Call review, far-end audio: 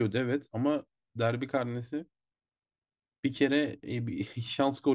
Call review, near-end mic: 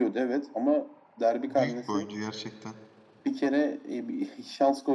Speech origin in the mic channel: both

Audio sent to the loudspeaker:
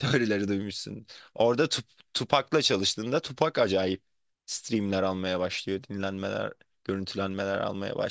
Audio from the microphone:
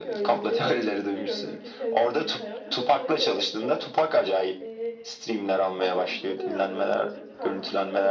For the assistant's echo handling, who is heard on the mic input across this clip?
both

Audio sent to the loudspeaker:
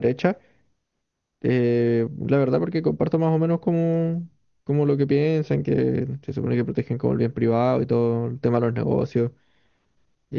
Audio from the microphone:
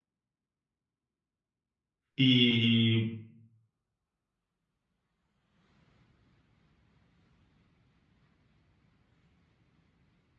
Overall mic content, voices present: user only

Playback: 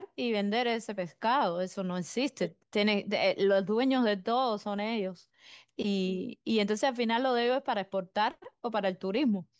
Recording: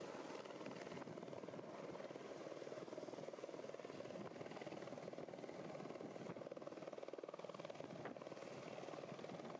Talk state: neither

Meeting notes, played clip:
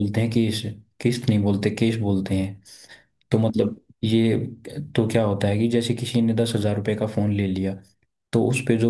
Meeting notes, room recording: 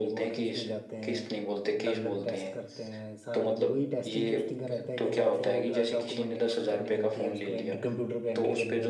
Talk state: both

